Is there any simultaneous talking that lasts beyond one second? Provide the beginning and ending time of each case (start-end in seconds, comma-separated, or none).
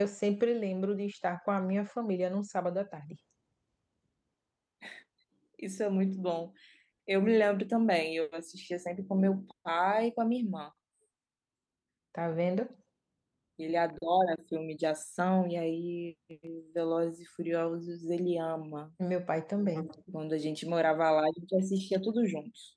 none